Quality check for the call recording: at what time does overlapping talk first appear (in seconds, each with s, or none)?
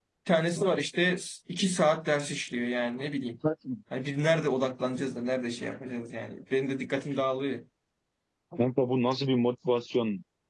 none